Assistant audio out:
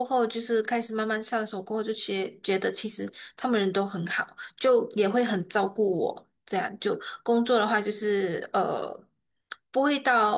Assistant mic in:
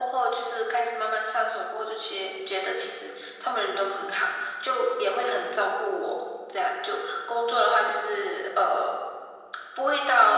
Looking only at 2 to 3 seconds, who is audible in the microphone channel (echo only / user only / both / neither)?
echo only